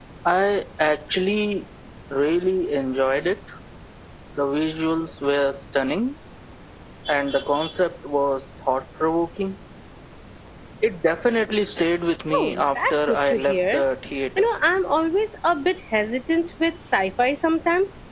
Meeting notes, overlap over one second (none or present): present